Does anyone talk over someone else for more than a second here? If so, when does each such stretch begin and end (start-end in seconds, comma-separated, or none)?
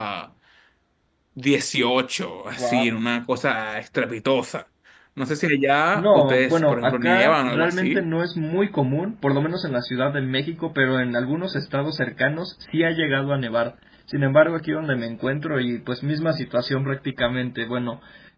5.9-8.0